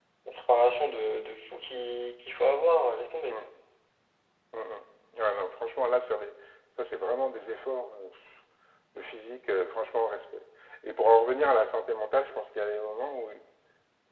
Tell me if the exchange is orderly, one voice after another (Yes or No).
Yes